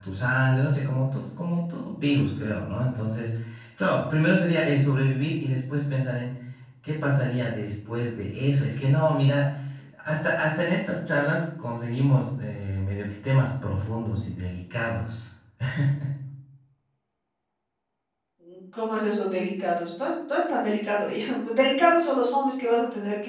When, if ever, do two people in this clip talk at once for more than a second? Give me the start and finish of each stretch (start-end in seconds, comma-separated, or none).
none